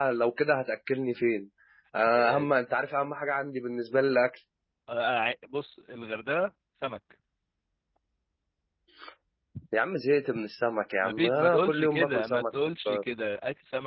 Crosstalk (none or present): present